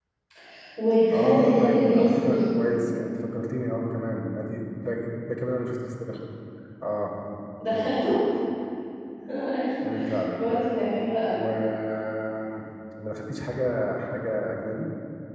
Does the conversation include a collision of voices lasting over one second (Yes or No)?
Yes